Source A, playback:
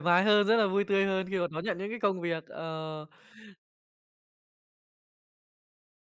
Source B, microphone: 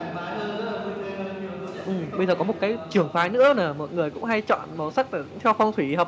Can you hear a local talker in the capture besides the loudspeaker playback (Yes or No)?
Yes